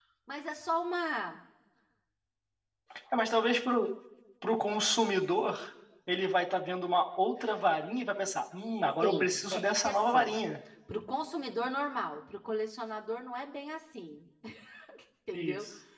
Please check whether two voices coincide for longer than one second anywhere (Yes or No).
Yes